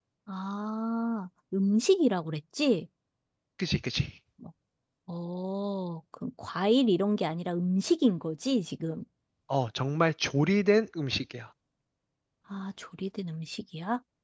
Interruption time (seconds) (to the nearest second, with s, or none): none